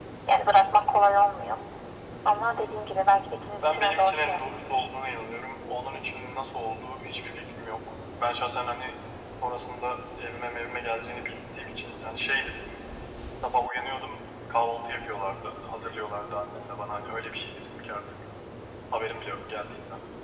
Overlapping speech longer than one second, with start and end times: 3.6-4.8

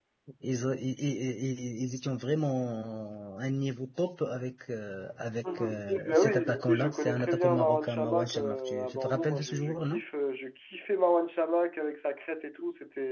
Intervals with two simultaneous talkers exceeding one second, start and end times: 5.5-10.0

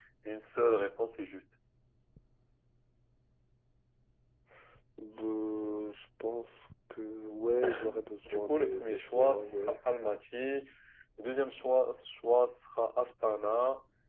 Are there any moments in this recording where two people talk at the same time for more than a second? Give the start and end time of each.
8.2-9.8

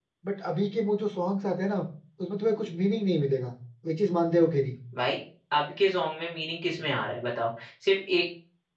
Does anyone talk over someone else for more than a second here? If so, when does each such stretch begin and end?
none

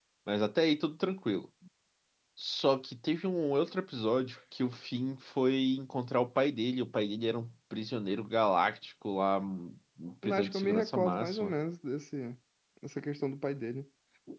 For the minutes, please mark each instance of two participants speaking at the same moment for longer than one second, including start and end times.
10.3-11.5

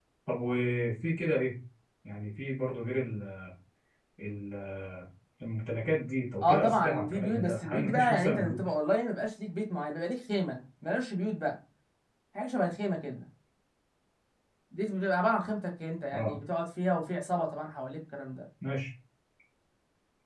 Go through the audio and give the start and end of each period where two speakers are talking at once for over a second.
6.4-8.6

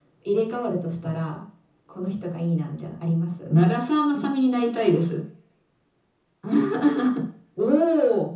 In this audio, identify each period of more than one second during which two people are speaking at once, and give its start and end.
none

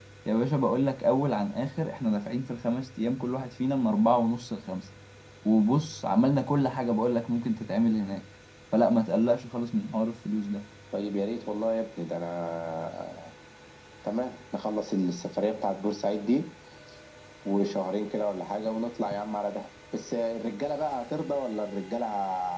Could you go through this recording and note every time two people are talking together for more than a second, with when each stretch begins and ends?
none

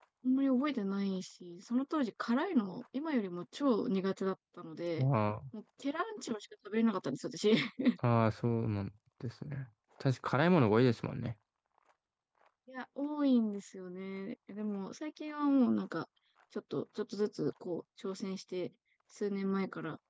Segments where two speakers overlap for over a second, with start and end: none

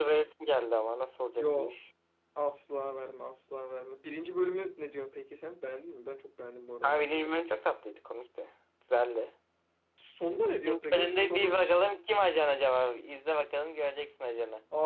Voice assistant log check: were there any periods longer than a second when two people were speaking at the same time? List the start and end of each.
10.5-11.7

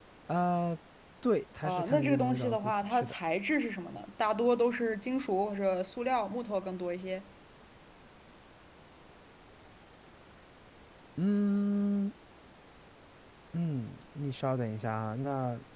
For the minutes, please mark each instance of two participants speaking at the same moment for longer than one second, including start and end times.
1.6-3.1

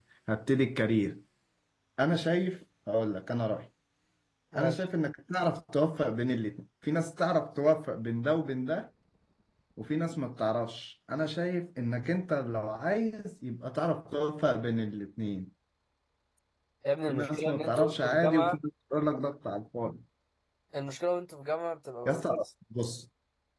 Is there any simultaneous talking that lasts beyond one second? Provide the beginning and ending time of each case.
17.1-18.6

